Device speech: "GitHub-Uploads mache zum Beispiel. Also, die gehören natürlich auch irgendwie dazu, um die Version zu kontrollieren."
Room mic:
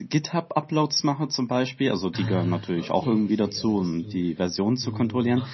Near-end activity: present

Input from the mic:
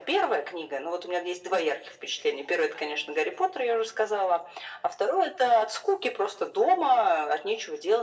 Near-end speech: none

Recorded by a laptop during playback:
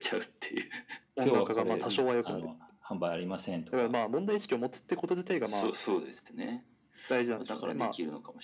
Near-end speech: present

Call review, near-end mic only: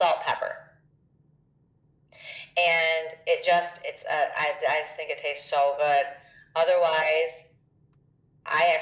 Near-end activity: none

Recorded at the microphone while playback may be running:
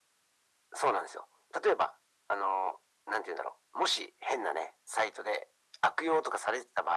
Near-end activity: none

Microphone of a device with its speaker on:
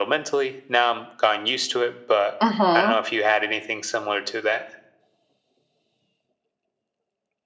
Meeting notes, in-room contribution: present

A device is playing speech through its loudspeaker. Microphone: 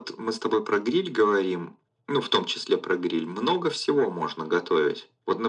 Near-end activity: none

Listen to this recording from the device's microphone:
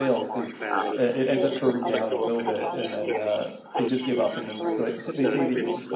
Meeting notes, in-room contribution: present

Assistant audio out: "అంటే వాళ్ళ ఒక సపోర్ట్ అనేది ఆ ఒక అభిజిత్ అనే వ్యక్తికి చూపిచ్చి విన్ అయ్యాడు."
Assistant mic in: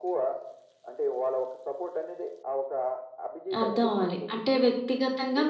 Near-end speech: present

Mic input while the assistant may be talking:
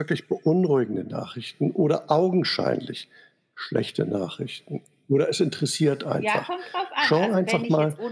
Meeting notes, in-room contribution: present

